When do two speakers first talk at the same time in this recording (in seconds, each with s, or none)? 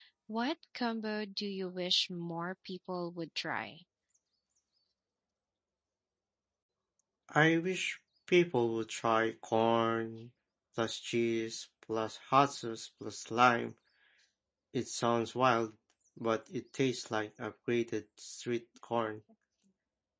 none